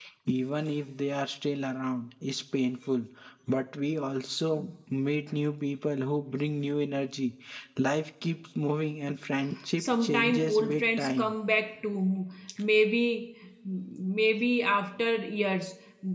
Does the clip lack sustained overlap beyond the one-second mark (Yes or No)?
No